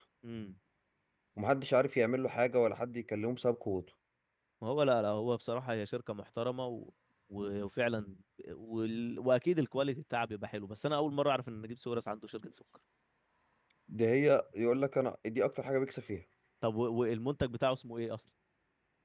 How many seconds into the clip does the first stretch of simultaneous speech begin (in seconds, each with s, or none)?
none